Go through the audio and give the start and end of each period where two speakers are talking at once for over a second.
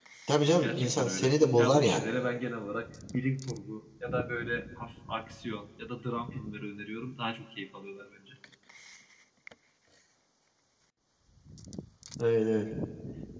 0.6-2.0

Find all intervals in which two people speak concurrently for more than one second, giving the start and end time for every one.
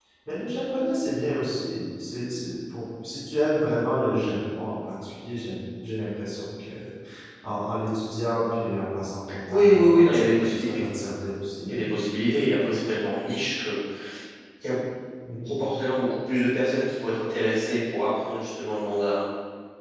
9.5-10.8

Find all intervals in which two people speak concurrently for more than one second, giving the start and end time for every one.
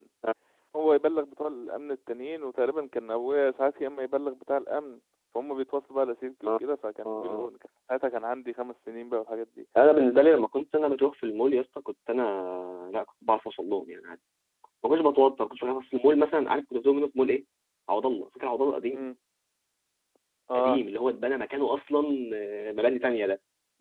none

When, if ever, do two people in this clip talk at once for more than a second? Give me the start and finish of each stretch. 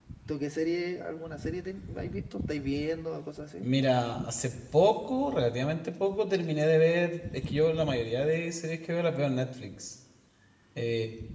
none

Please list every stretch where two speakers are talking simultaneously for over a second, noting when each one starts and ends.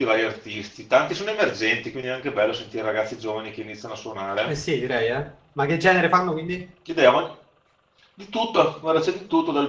none

